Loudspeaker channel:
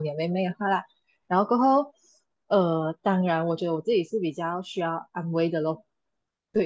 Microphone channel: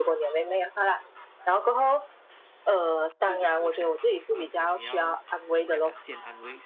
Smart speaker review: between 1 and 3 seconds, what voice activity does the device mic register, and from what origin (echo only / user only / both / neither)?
echo only